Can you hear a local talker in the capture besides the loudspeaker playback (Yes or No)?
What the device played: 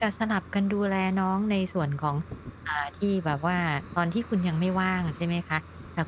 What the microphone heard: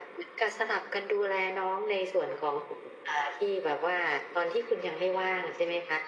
No